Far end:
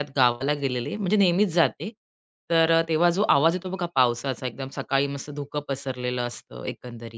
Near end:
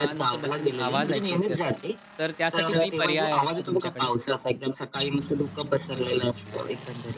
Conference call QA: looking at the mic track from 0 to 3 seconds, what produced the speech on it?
both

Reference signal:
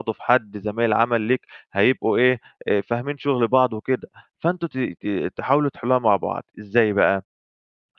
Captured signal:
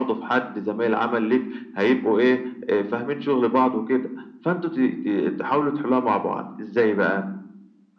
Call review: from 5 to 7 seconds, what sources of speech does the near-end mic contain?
echo only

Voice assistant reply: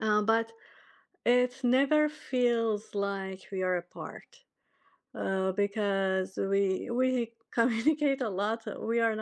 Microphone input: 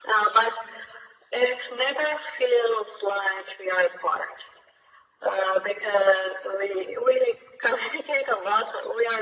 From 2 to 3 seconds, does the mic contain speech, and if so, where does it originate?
echo only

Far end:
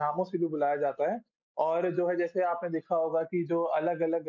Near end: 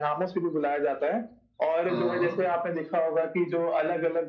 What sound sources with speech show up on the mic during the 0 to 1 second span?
echo only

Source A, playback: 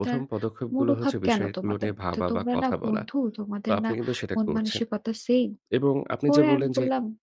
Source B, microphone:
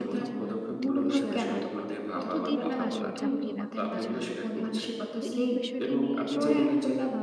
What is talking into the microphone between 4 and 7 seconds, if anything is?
both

